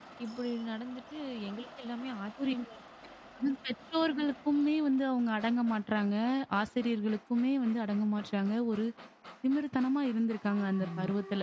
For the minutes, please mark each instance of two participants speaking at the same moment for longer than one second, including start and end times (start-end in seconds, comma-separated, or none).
none